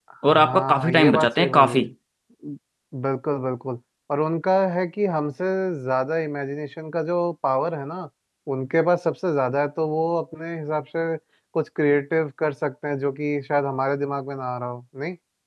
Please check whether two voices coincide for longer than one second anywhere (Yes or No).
Yes